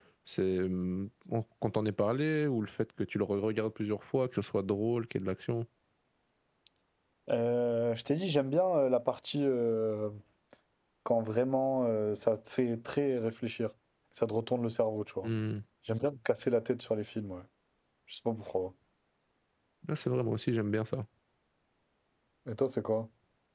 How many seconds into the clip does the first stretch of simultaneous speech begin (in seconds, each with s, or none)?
none